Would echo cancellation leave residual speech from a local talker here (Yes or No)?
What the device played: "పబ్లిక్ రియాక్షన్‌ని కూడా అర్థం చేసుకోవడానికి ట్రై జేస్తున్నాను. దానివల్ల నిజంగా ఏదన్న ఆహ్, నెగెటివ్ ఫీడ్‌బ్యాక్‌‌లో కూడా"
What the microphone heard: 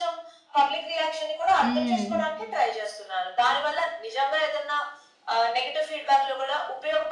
Yes